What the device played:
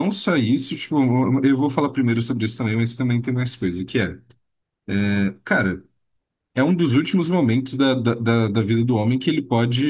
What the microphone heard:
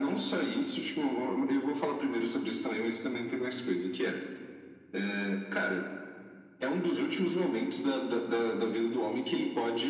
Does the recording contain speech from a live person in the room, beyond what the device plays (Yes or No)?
No